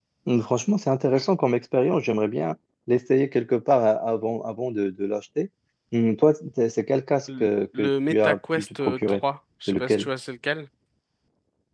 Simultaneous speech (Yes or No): Yes